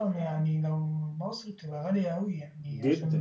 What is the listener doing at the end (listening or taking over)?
taking over